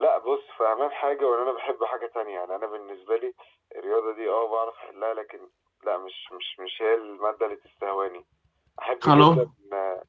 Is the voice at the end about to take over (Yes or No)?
No